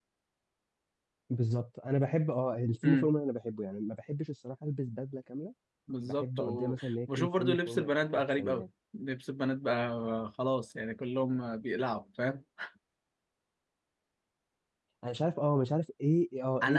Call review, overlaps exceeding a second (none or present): present